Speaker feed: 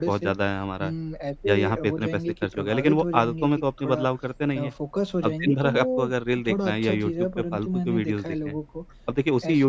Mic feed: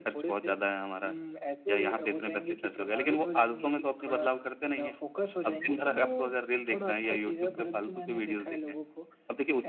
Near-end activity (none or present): present